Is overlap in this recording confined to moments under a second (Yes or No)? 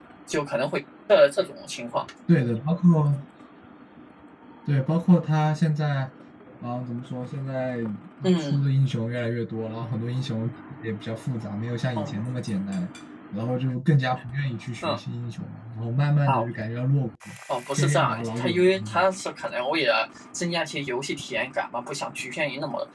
No